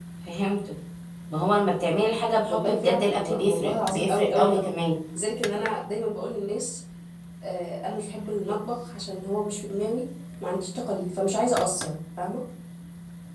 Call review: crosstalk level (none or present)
present